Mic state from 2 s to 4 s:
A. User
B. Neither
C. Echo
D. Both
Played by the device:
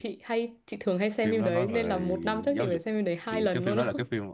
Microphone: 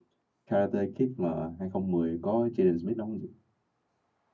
A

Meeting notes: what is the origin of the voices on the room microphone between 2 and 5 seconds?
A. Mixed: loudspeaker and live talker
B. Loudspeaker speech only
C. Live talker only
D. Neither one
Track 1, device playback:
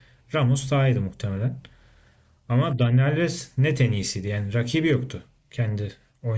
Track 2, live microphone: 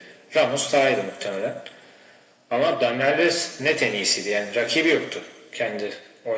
B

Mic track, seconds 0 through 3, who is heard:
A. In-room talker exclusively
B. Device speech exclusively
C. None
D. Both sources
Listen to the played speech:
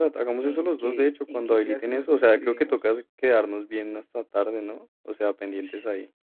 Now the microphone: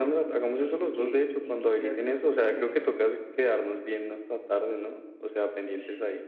B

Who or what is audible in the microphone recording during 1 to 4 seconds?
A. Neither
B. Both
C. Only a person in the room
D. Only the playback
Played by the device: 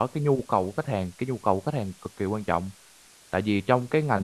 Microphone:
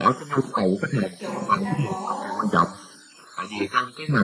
B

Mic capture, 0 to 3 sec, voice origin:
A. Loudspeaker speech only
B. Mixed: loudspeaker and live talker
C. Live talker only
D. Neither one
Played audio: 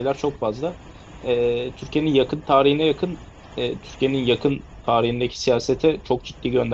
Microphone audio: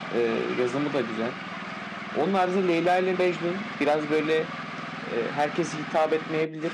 C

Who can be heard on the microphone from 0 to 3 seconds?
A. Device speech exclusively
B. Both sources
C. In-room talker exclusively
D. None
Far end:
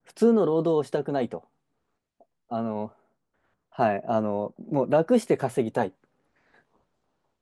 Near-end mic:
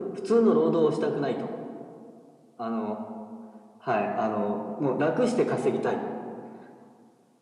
A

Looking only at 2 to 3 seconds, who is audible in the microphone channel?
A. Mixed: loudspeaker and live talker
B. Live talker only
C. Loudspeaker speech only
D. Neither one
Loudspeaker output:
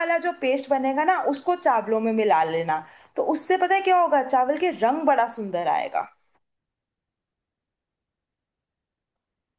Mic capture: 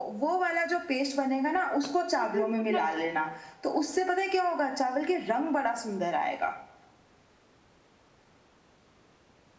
A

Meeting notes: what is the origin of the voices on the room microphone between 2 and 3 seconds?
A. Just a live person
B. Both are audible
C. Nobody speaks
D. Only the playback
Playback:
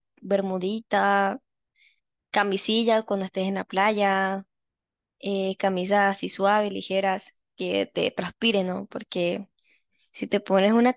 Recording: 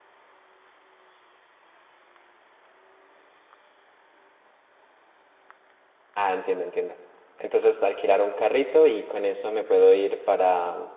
C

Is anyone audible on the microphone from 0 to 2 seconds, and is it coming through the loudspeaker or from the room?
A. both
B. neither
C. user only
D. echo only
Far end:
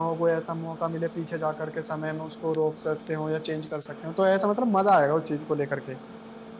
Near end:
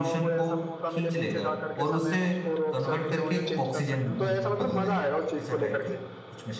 A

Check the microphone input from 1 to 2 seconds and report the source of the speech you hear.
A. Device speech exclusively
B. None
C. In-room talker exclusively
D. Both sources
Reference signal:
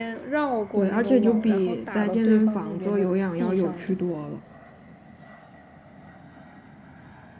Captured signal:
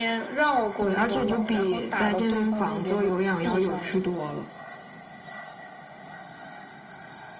A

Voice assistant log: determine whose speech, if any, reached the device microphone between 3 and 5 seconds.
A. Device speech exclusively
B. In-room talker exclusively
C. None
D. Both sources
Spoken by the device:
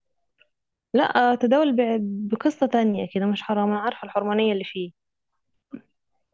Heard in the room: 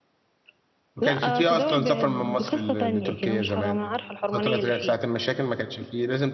D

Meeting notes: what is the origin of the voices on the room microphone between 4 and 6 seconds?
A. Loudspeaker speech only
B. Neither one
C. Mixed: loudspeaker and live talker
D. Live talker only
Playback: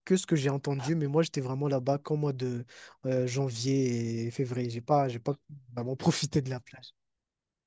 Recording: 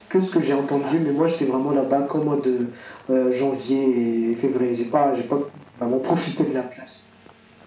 A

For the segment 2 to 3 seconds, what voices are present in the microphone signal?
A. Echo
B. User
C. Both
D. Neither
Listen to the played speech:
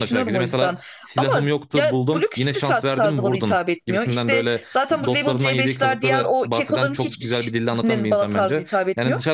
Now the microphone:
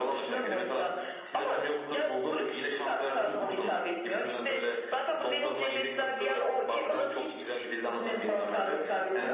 A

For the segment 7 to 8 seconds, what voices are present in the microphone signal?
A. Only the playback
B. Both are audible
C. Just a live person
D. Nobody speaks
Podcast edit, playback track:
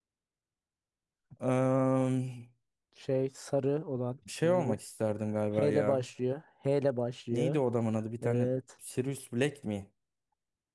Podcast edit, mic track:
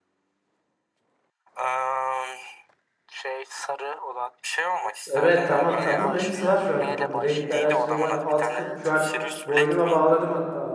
B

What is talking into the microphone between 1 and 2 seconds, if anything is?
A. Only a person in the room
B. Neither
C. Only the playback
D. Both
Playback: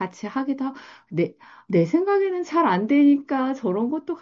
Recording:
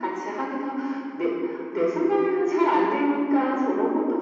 C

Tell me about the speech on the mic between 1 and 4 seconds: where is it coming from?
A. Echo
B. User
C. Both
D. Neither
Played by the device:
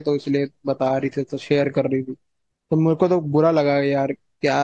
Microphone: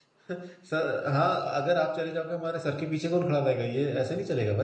B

